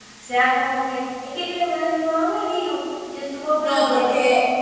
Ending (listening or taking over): taking over